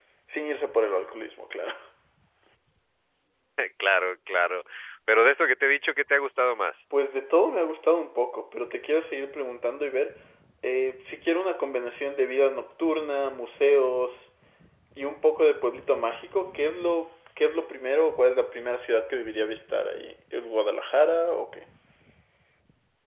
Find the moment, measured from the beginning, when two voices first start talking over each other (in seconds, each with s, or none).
none